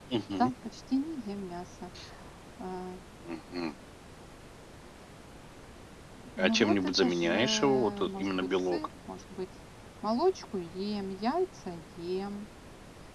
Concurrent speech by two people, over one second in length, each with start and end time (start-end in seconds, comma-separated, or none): 6.4-8.8